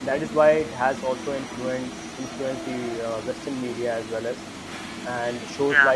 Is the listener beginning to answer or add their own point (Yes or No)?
No